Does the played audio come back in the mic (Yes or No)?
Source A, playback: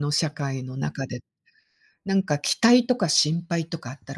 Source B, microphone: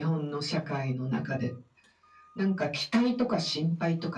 Yes